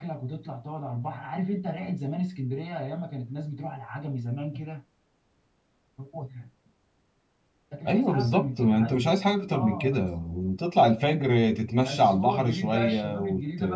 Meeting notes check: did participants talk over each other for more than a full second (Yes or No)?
Yes